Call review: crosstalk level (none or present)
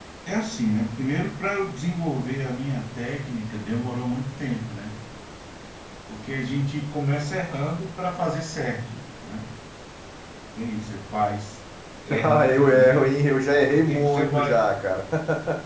present